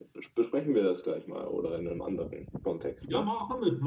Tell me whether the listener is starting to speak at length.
Yes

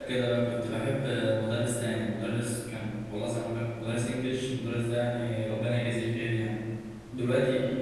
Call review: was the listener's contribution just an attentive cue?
Yes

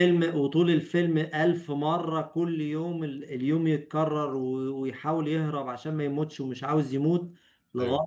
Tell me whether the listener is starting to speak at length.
No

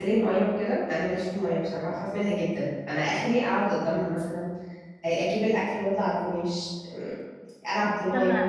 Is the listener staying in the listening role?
No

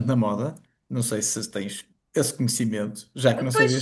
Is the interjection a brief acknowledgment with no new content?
No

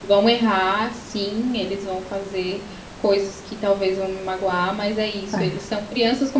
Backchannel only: Yes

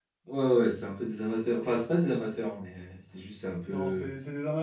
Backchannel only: No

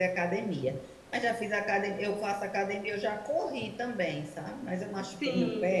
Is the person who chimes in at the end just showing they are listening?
Yes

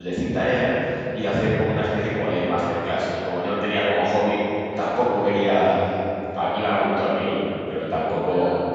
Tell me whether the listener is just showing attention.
Yes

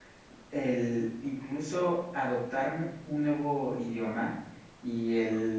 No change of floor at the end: Yes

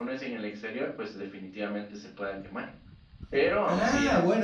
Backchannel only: No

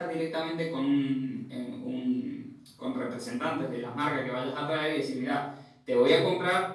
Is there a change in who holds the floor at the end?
No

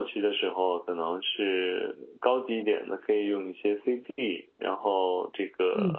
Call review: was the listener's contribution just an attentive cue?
Yes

